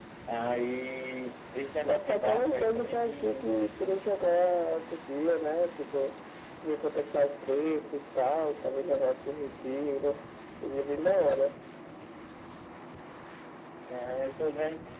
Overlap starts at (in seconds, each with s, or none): 1.9 s